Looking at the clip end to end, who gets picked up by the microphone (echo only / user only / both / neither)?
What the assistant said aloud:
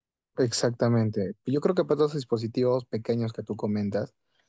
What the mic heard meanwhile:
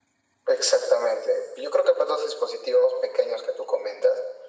echo only